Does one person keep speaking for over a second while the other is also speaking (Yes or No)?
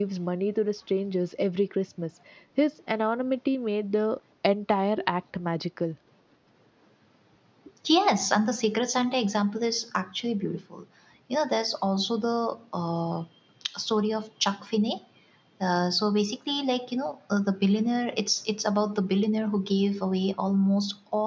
No